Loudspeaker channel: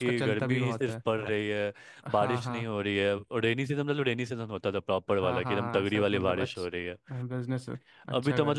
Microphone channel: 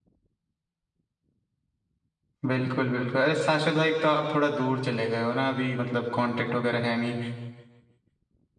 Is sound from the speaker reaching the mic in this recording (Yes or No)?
No